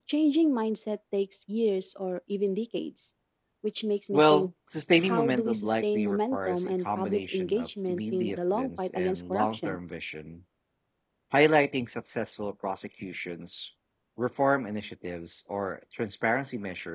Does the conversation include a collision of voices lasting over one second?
Yes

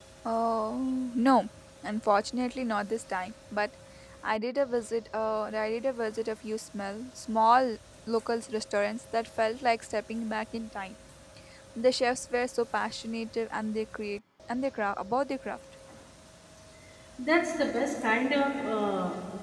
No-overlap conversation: Yes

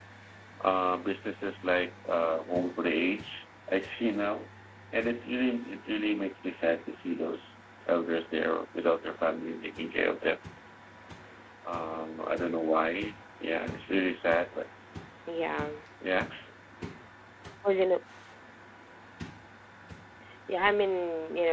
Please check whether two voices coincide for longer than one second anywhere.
No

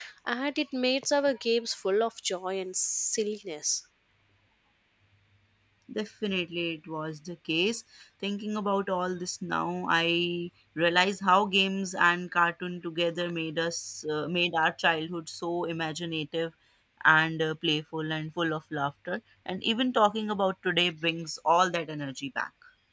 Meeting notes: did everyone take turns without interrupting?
Yes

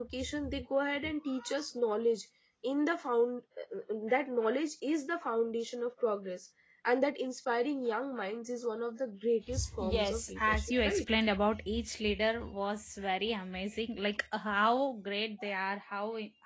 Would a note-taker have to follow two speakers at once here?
Yes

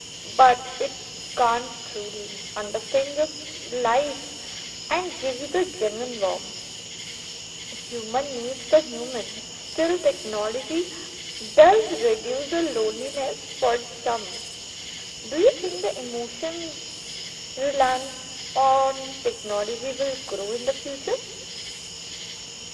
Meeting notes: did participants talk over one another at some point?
No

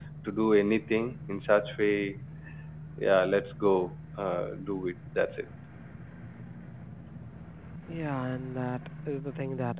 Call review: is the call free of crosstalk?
Yes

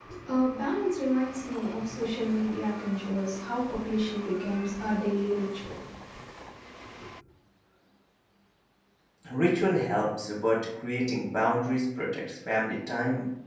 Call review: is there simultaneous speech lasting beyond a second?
No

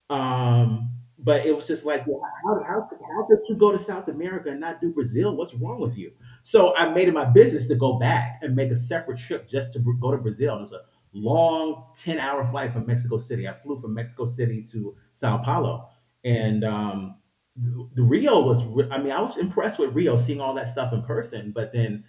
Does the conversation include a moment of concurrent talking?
No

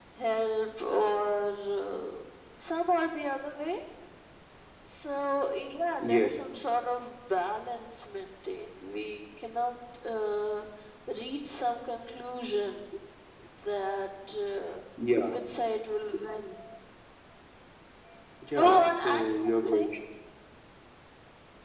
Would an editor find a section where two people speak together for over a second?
Yes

